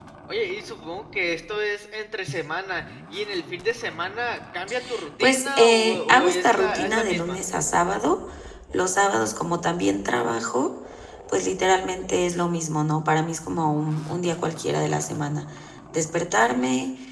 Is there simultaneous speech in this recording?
Yes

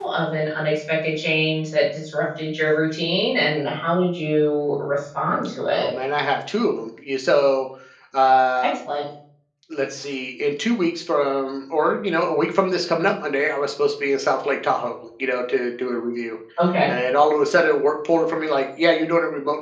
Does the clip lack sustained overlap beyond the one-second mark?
Yes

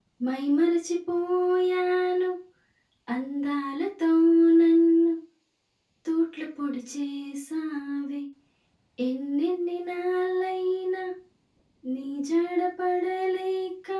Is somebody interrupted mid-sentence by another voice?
No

